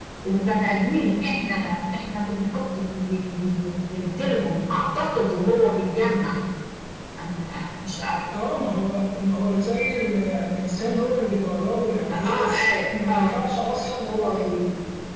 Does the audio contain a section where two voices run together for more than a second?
No

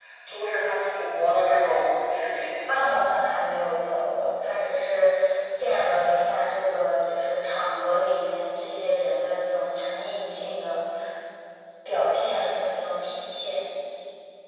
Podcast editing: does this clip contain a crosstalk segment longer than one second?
No

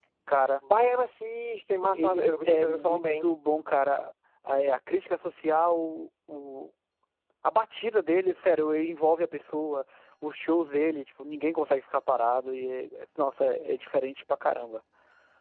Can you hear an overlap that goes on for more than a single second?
Yes, from 1.9 s

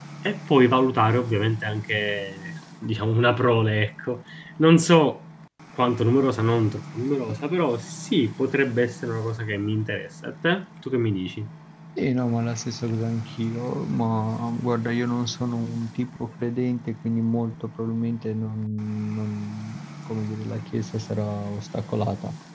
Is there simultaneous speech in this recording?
No

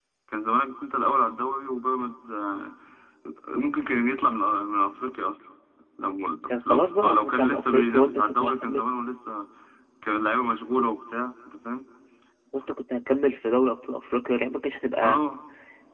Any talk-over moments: Yes, from 6.5 s

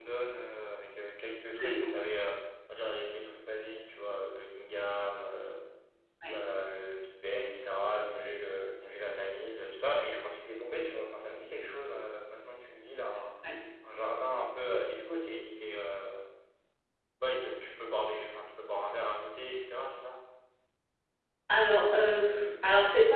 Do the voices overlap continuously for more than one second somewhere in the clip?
No

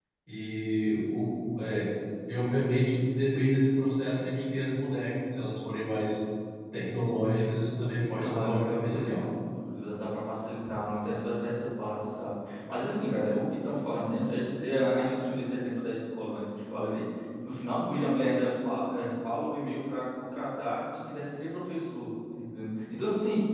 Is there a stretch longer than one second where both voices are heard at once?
Yes, from 7.9 s

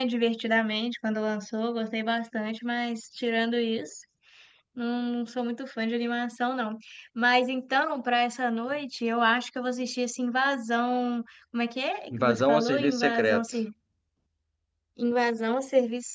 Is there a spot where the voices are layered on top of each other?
Yes, from 12.1 s

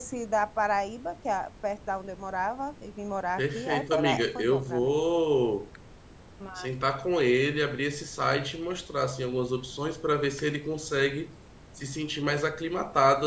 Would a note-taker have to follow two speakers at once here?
Yes, from 3.4 s

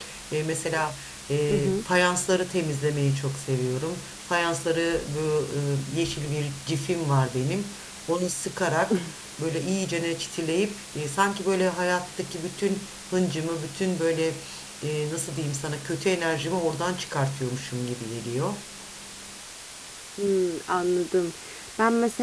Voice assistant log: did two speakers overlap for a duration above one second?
No

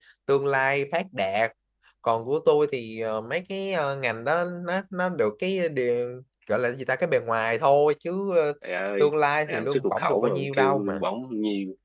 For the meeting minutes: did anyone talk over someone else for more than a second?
Yes, from 9.5 s

